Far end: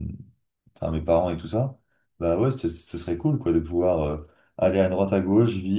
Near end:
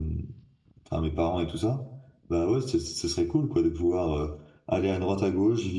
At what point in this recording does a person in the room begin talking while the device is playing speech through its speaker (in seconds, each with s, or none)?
none